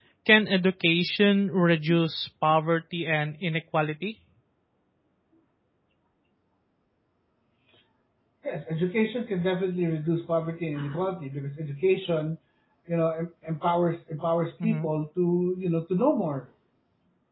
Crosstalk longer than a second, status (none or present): none